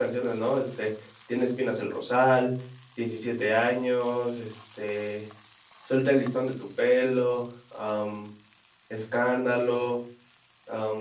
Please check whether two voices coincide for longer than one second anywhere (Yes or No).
No